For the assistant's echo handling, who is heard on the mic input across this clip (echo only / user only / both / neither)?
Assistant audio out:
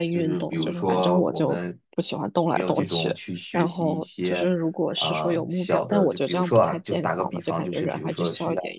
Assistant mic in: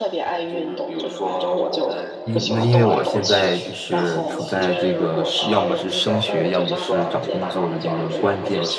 both